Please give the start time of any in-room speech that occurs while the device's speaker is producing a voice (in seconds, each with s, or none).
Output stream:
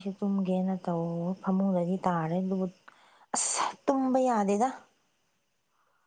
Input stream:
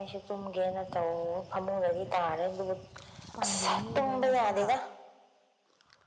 3.4 s